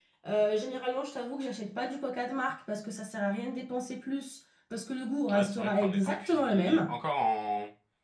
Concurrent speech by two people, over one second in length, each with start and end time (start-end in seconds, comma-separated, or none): 5.3-6.9